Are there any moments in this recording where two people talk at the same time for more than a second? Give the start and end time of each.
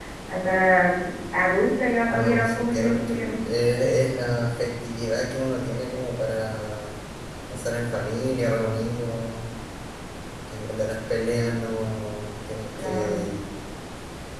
2.1-3.3

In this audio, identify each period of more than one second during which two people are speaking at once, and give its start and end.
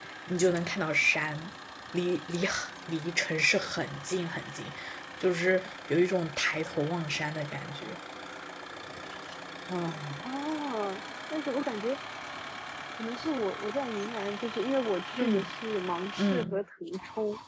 none

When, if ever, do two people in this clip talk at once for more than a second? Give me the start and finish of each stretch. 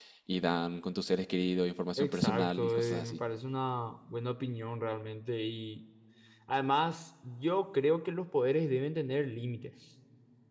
2.0-3.2

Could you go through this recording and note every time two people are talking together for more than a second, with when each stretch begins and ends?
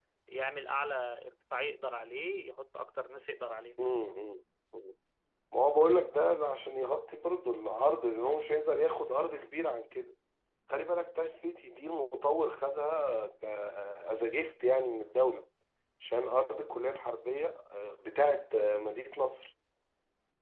none

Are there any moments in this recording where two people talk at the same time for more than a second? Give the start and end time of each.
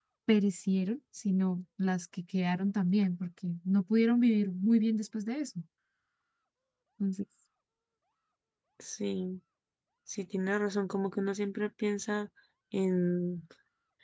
none

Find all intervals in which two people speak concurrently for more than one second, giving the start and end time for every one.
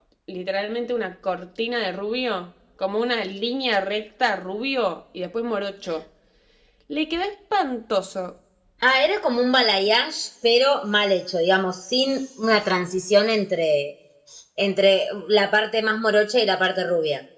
none

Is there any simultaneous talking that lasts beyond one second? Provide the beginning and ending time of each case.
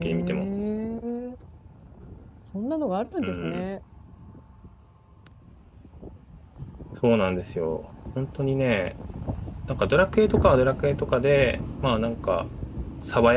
none

